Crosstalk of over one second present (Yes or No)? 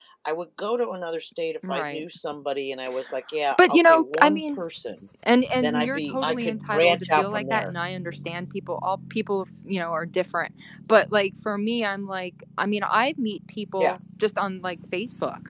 Yes